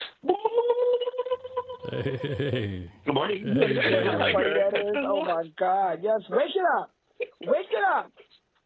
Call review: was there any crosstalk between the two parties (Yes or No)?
Yes